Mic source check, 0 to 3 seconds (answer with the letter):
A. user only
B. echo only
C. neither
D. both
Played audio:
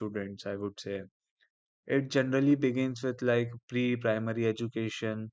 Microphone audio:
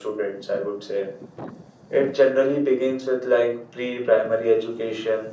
B